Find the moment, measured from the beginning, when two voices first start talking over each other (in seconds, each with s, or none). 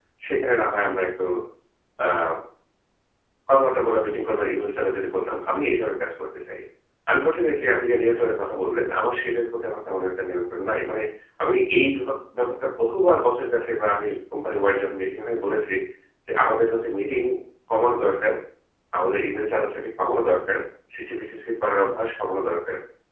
none